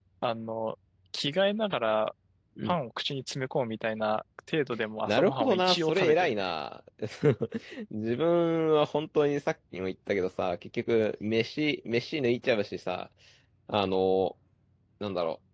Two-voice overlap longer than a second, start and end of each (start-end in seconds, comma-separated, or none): 5.0-6.5